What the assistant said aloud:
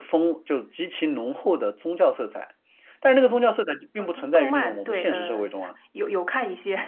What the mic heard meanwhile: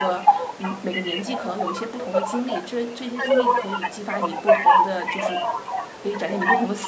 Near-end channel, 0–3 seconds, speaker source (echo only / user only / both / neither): both